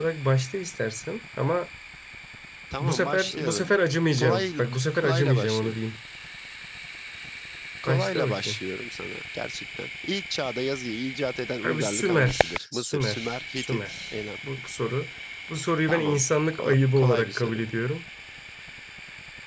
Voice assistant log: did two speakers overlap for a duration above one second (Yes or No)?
Yes